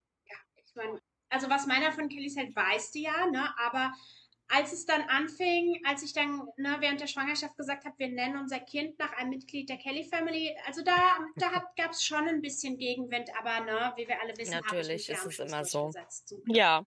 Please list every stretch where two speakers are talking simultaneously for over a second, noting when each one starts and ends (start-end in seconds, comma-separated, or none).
14.4-15.9